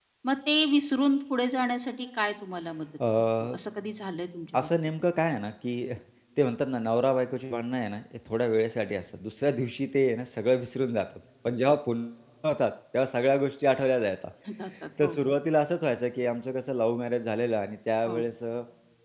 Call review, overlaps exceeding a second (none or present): none